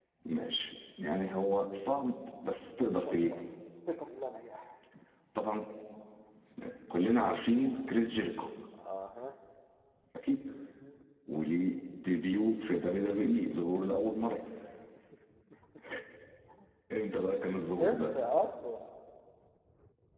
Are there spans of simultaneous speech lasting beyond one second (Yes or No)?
No